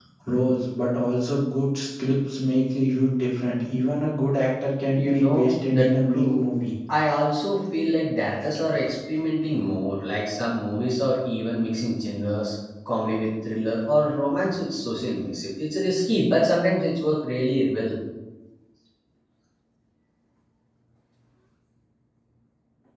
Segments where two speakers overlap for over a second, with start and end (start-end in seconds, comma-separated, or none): 5.0-6.4